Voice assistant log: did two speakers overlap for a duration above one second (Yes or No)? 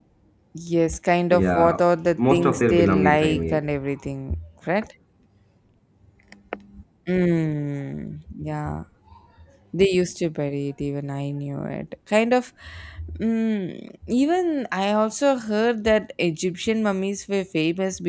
Yes